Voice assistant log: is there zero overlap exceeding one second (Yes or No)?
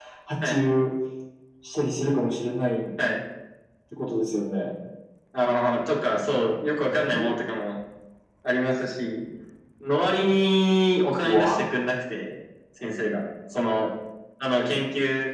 Yes